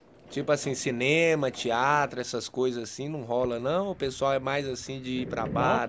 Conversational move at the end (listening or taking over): taking over